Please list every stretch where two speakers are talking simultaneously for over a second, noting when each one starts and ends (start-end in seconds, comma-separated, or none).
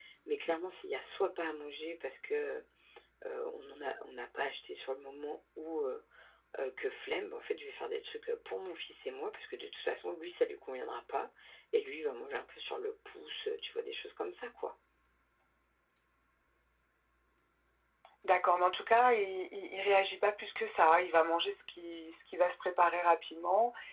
none